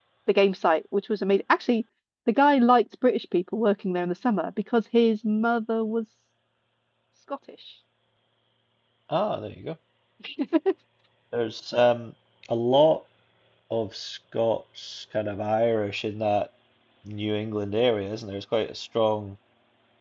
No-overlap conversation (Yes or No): Yes